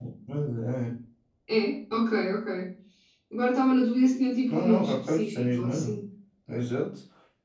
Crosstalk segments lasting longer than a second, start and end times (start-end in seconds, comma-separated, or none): 4.5-6.0